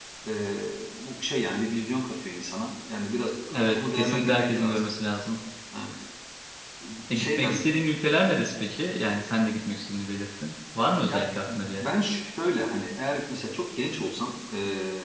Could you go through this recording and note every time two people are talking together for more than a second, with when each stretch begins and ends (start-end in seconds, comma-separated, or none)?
3.5-4.9